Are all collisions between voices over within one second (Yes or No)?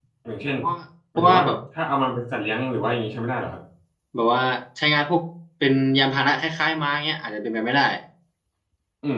Yes